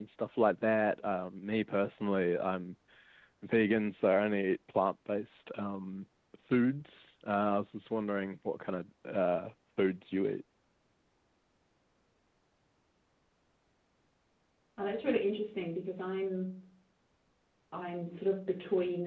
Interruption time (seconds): none

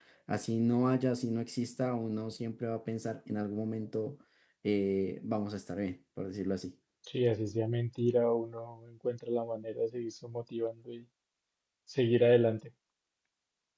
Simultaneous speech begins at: none

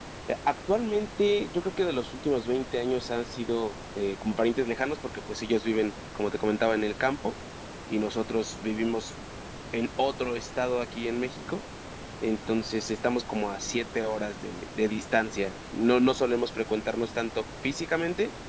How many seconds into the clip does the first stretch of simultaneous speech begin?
none

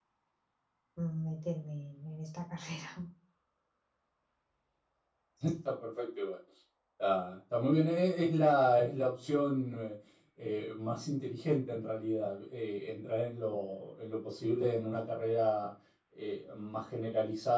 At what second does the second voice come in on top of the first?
none

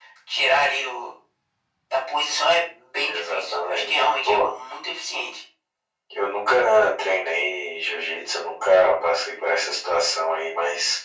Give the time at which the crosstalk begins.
3.0 s

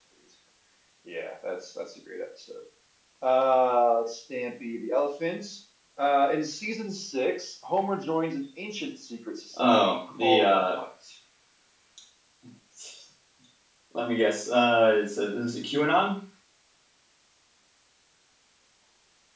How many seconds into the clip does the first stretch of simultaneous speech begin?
9.6 s

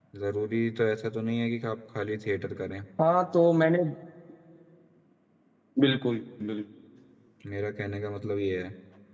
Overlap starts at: none

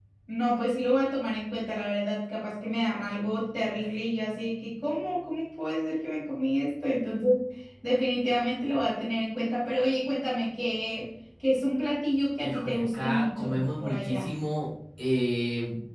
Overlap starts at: 12.4 s

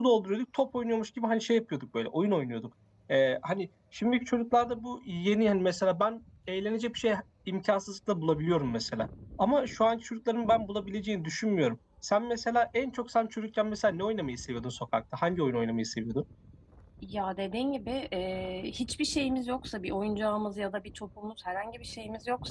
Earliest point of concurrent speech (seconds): none

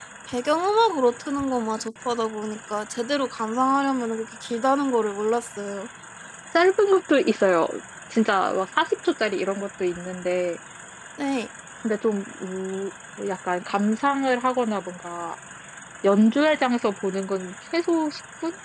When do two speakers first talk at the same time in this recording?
none

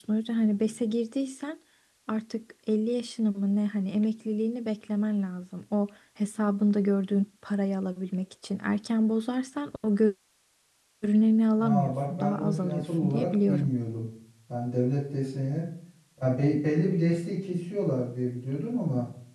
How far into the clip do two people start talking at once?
11.6 s

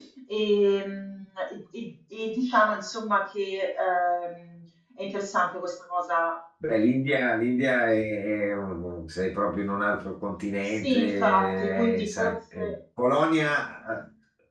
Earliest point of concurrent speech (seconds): 10.8 s

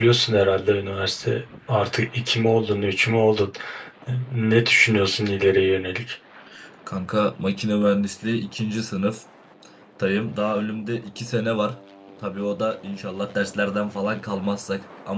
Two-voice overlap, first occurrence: none

